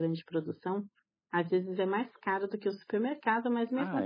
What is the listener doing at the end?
listening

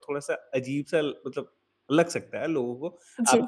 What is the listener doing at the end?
listening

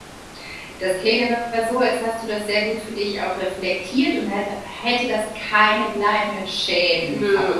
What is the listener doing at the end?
taking over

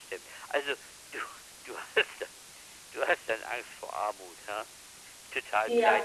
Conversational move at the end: taking over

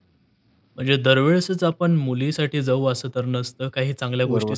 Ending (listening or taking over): listening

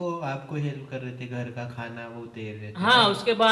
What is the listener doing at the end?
taking over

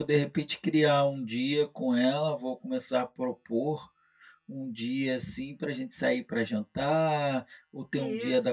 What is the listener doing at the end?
listening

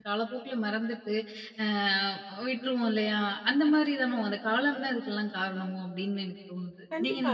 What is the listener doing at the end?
taking over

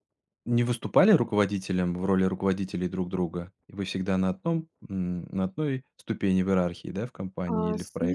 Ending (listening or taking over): taking over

